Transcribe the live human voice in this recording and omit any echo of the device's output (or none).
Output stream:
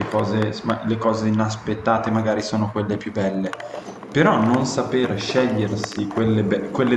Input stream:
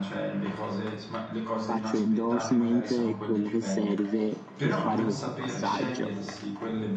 faccio endorsement e quello che serve per fare questo passaggio,